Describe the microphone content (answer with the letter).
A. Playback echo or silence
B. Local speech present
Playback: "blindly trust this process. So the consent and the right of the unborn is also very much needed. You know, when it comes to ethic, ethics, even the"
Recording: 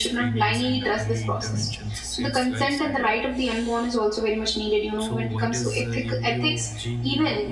B